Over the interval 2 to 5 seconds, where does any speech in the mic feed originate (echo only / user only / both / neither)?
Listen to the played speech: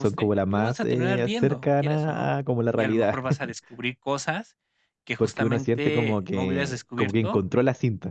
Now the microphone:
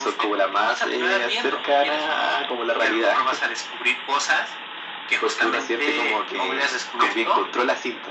echo only